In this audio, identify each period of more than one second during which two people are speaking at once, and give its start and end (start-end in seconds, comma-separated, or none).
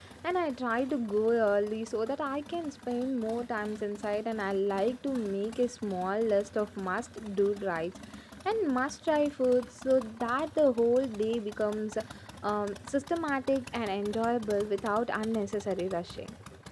none